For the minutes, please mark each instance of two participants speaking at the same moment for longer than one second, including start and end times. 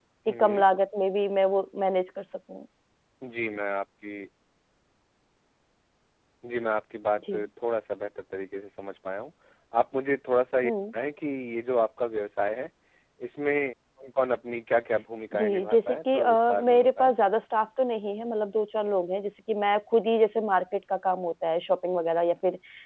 15.3-17.1

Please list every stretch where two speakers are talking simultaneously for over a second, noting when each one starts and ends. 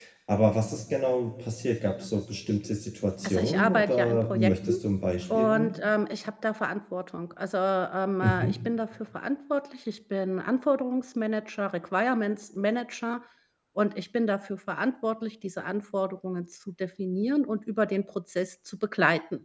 3.2-4.7

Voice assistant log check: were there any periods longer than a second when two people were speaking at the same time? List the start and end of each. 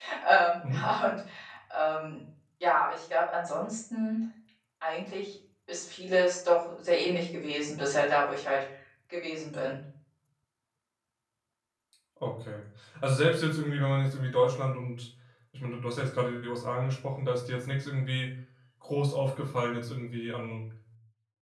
none

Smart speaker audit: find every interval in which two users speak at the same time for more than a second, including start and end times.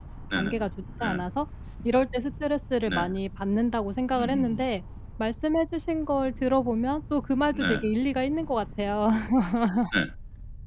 none

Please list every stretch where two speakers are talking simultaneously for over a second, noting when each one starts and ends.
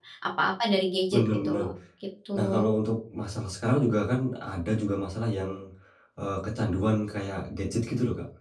none

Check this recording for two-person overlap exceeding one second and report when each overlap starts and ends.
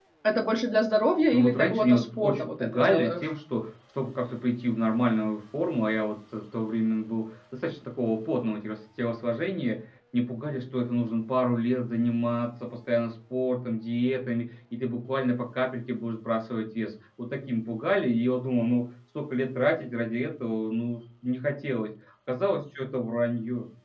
1.3-3.3

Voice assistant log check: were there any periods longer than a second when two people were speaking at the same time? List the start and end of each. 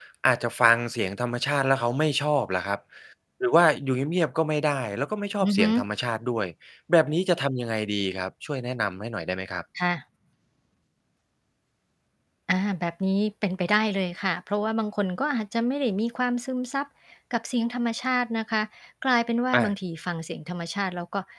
none

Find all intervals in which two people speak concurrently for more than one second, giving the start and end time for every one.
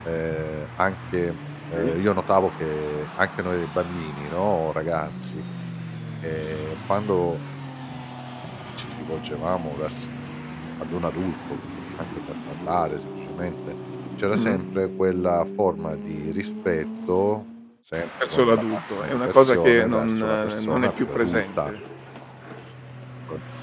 18.2-21.7

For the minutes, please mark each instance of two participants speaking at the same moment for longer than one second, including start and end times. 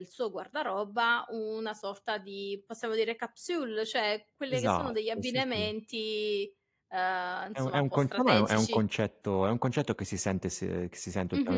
4.5-5.7, 7.6-8.8

